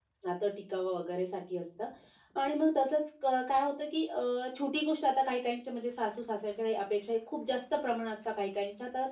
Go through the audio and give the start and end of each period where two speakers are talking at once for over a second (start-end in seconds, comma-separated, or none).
none